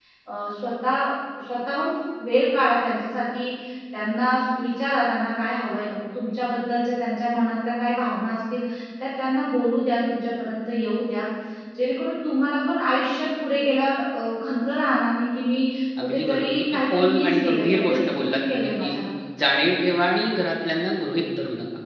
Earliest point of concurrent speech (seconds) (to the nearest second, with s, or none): 16 s